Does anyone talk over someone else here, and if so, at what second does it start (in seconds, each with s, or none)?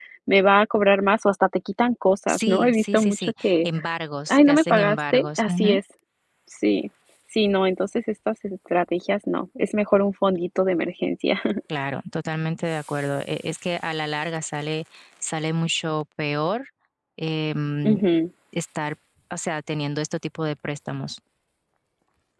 2.3 s